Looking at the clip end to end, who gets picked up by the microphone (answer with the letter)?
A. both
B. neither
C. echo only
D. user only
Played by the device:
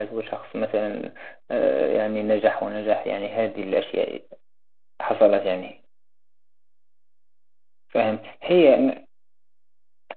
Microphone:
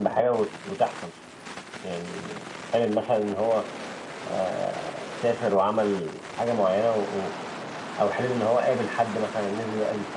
D